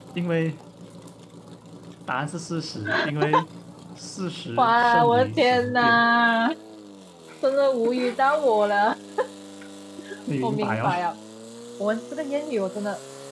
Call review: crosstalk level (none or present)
present